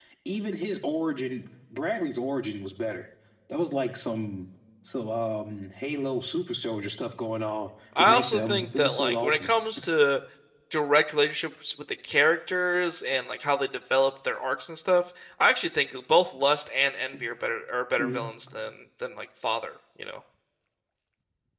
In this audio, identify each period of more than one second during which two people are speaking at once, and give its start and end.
8.0-9.5

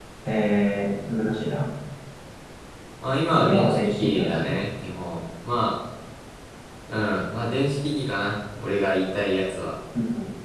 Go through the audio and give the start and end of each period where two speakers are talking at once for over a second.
3.3-4.5

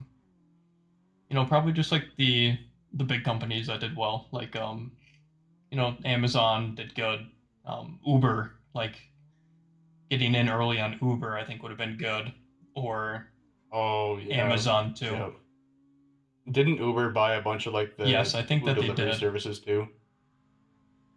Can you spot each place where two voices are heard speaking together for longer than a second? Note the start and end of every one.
18.0-19.3

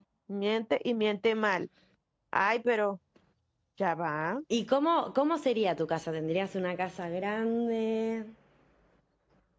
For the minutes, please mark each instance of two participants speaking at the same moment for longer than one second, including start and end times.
none

